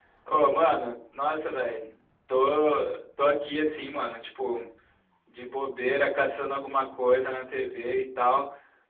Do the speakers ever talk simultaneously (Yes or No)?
No